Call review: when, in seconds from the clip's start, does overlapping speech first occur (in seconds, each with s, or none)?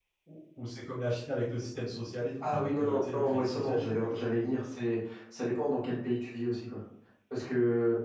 2.4 s